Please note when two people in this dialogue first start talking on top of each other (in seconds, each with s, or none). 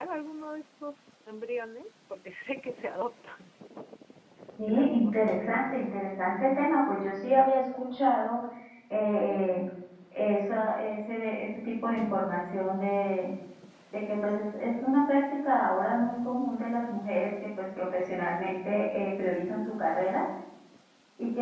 4.7 s